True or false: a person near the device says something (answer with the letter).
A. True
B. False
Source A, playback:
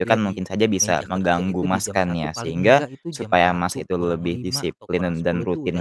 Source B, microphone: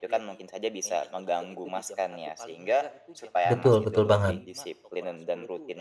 A